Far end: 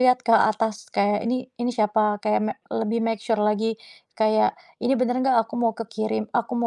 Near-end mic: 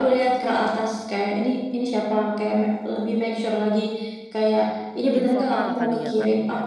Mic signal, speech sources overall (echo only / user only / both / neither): both